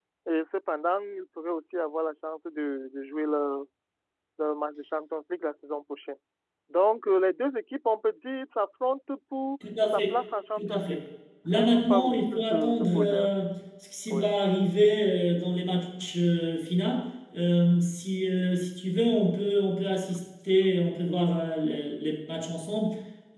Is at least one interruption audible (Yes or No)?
Yes